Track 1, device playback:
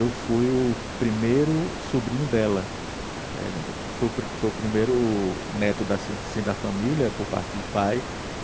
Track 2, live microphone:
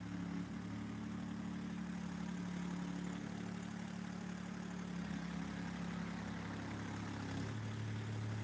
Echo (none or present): none